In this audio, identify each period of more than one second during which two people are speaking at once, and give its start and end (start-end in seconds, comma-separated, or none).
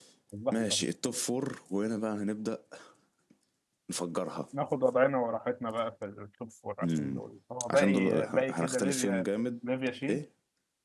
7.7-9.2